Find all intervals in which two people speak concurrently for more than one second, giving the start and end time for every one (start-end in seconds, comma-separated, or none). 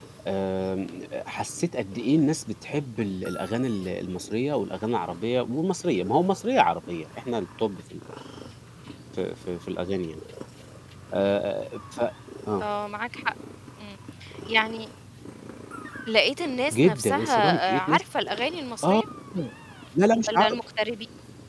16.7-18.0